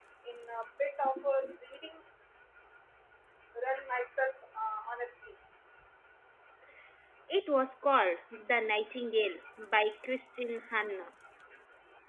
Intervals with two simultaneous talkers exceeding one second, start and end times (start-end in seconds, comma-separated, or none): none